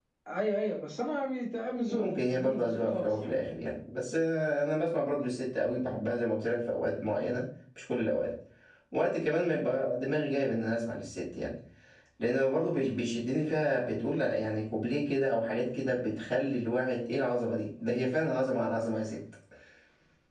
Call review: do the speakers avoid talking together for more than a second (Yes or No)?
No